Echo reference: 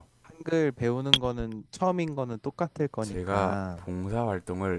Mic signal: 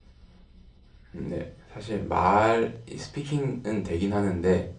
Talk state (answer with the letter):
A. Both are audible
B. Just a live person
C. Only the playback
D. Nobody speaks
B